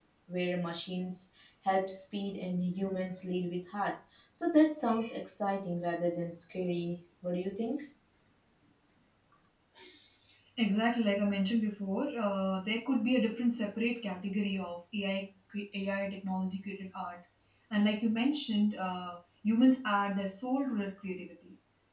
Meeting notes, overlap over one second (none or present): none